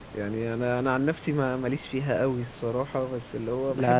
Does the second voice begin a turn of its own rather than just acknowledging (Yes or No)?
Yes